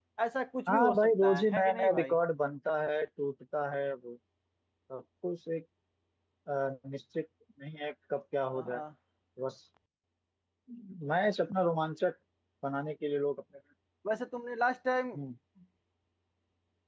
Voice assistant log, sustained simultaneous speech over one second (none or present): present